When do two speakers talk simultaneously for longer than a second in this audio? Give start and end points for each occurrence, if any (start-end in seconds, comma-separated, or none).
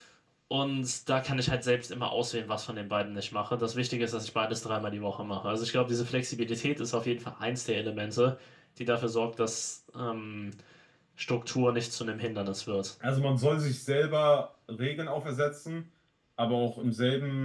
none